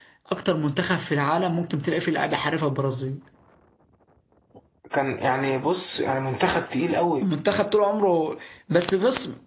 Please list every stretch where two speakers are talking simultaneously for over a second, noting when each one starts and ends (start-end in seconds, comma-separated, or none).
none